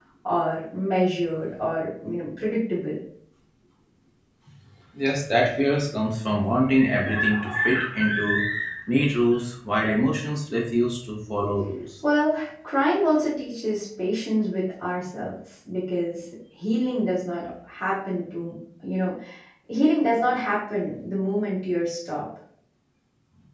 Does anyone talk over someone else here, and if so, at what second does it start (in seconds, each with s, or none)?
none